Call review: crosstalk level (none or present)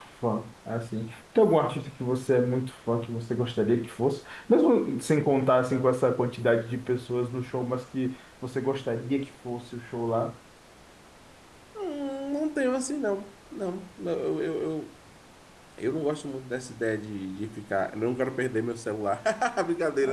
none